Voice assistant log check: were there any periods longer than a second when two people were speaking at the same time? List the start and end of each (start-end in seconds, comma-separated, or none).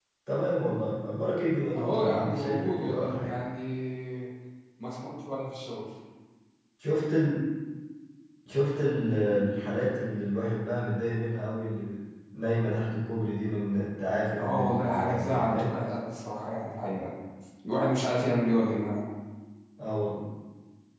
1.8-3.4, 14.4-15.8